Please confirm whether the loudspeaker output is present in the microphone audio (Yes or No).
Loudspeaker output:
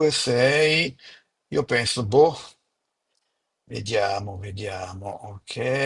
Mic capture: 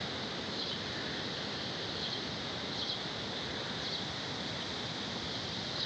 No